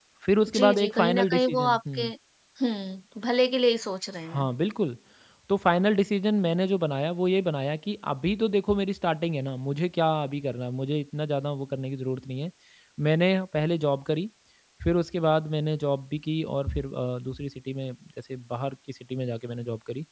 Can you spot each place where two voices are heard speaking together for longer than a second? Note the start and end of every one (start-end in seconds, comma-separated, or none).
0.5-2.0